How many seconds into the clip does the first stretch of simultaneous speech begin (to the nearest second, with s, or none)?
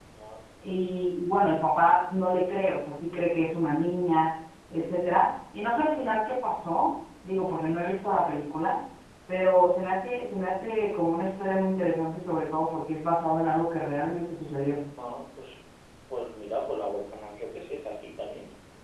none